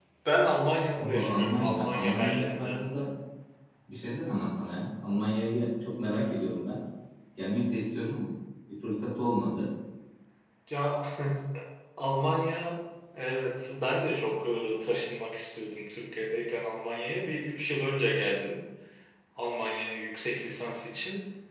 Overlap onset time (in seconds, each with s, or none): 1.0 s